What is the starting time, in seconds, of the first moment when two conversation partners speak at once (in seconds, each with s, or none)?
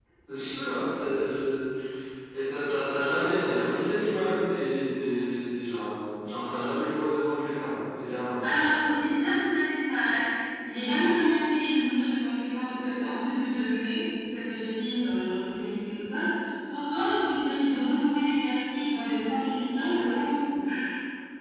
none